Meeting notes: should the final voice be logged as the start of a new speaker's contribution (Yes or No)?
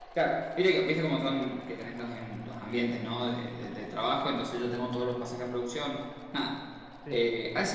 No